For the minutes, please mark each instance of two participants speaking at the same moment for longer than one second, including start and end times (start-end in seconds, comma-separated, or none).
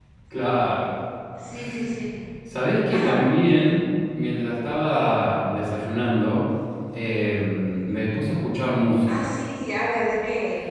none